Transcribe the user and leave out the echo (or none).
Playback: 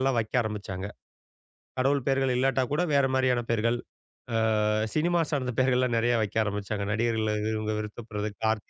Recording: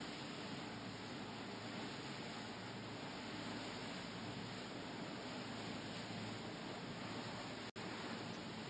none